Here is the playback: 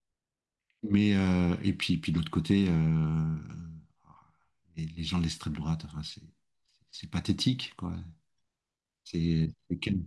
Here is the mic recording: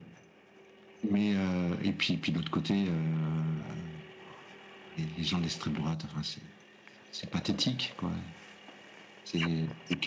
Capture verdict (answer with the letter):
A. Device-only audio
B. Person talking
A